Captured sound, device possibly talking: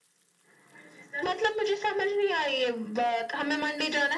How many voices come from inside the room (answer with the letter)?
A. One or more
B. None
B